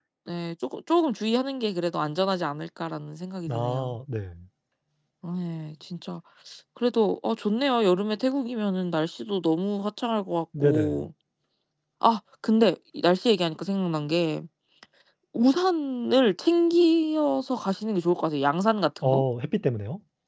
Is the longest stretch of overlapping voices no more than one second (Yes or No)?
Yes